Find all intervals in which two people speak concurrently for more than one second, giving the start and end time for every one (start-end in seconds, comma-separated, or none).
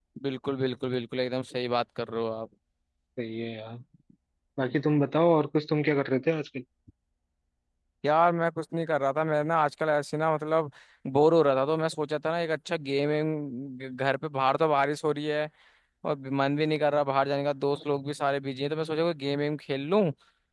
none